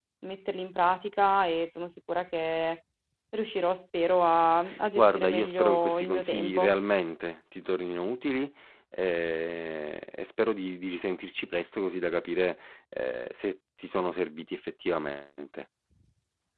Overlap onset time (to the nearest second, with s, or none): 5 s